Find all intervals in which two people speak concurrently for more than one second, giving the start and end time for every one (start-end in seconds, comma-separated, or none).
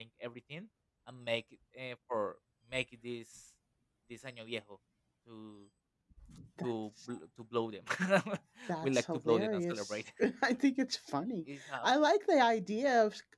8.8-10.0